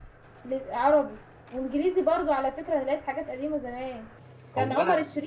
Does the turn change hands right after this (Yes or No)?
No